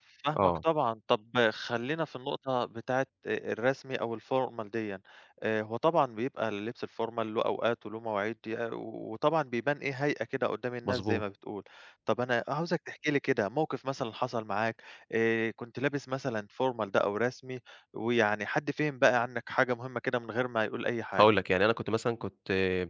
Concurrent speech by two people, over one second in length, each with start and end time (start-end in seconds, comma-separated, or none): none